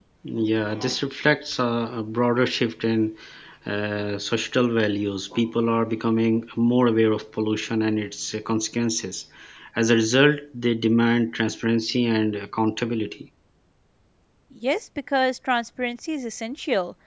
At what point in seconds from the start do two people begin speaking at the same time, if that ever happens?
none

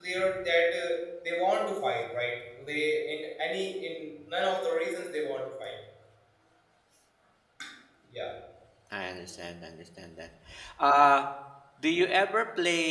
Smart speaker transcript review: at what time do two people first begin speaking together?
none

